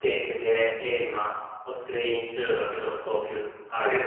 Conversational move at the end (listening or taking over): taking over